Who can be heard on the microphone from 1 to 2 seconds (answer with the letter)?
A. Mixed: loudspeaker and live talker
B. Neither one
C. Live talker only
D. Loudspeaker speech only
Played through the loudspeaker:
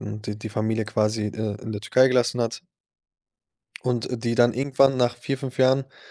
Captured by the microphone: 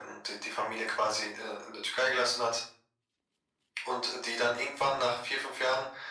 D